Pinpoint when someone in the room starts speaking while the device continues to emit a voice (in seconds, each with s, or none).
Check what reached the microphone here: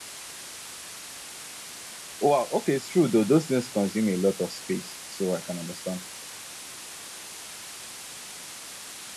2.2 s